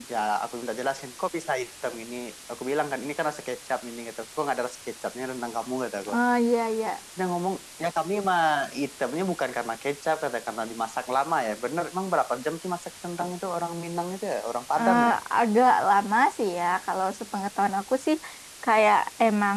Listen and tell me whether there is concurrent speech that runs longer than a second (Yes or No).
No